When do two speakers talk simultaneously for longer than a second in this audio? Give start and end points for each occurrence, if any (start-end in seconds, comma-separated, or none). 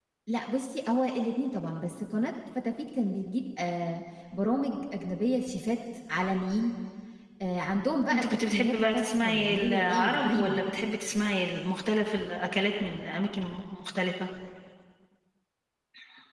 8.1-10.5